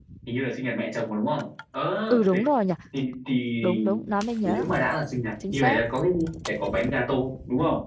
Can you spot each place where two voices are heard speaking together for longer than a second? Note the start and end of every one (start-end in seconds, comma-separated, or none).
none